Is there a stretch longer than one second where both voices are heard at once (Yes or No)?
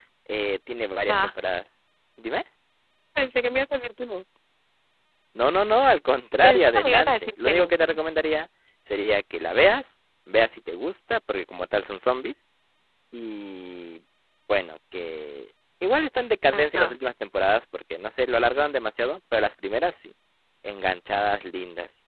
Yes